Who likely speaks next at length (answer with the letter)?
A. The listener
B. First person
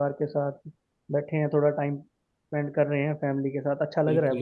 A